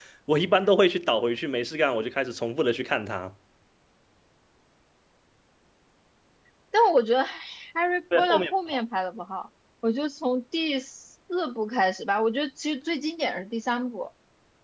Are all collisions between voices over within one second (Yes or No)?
Yes